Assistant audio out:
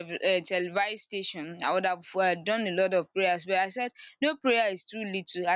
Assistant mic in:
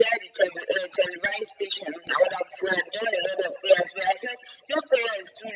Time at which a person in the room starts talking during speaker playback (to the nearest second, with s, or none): none